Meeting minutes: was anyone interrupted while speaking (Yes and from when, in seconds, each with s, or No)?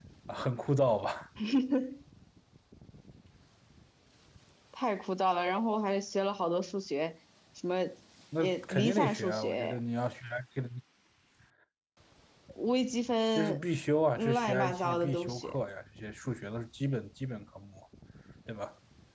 Yes, from 8.4 s